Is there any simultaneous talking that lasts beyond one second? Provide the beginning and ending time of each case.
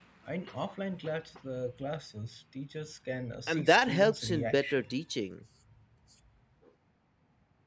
3.5-4.9

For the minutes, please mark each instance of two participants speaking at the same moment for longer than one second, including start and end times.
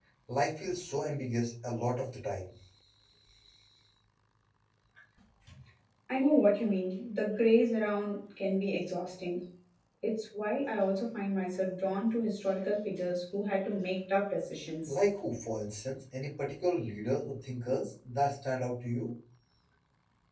none

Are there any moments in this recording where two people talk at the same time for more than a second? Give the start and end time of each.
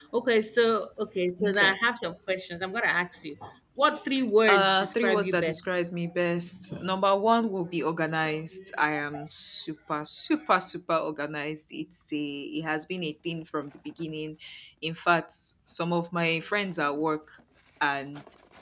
4.5-5.7

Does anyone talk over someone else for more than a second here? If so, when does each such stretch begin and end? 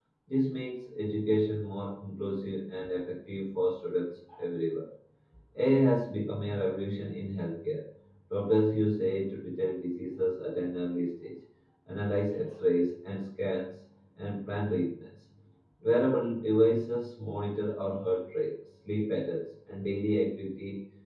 none

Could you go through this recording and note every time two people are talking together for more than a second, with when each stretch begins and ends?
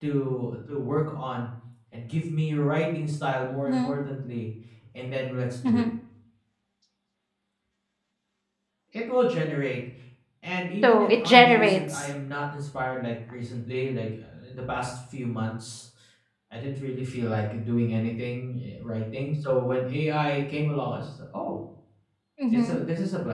10.8-12.0

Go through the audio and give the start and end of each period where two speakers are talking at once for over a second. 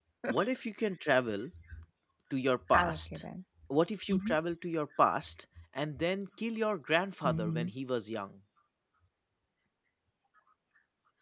none

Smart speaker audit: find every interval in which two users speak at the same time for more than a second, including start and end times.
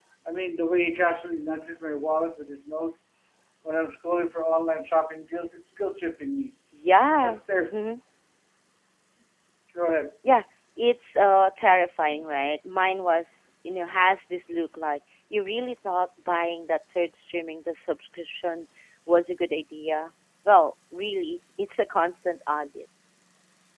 none

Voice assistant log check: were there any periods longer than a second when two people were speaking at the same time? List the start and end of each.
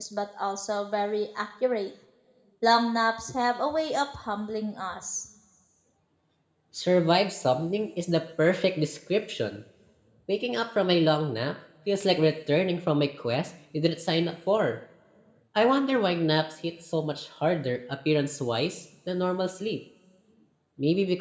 none

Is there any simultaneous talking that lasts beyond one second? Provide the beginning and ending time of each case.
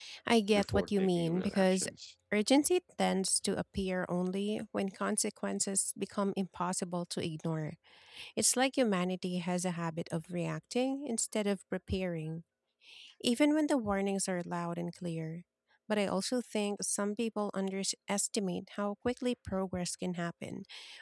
0.5-1.9

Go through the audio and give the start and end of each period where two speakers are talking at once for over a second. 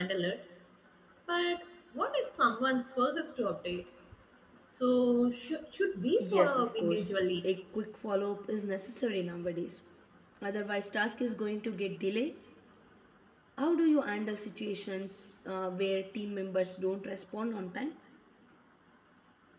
6.2-7.5

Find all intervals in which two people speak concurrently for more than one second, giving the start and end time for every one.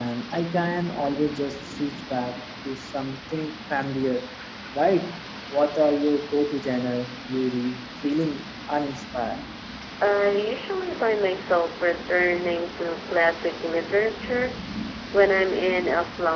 none

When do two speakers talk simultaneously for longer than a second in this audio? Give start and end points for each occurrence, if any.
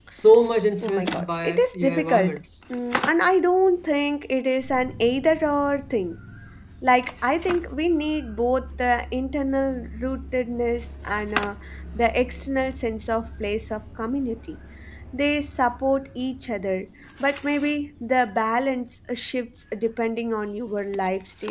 0.8-2.4

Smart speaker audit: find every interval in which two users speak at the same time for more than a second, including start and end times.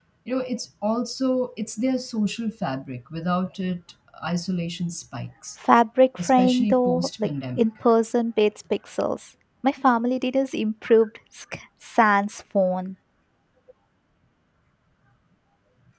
6.2-7.7

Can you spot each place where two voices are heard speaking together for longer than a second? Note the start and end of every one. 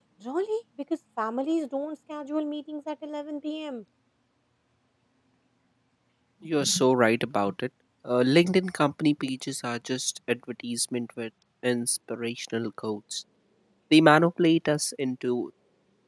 none

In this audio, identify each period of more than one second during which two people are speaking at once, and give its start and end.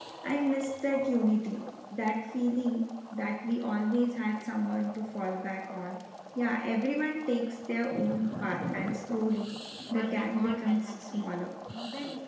9.9-11.3

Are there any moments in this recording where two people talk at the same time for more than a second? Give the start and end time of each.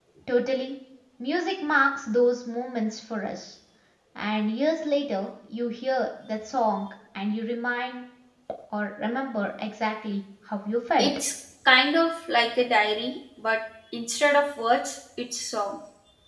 none

